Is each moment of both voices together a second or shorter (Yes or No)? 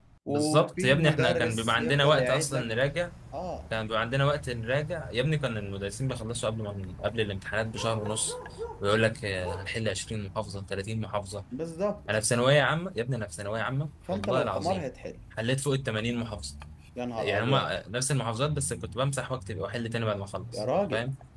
No